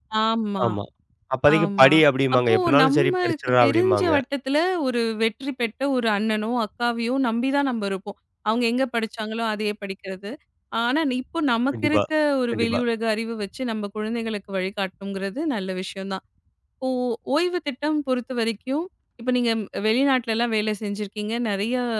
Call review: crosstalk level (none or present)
present